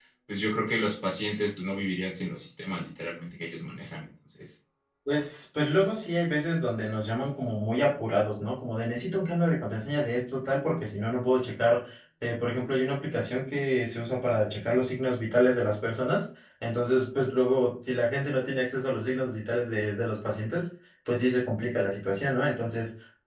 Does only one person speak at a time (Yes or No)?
Yes